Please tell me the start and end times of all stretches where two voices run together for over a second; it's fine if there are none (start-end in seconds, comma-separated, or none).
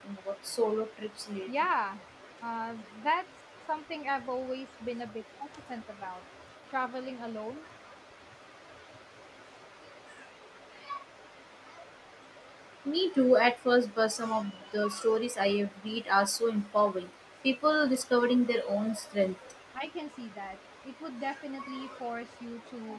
none